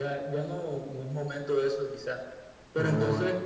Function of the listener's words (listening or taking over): listening